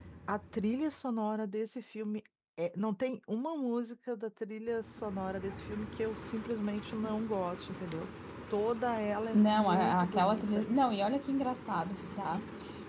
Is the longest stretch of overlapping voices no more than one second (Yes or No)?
No